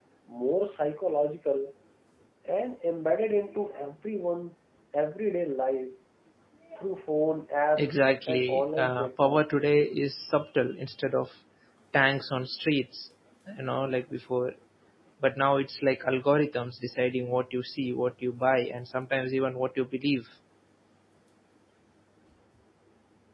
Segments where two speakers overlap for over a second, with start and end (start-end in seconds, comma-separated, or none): 7.8-9.4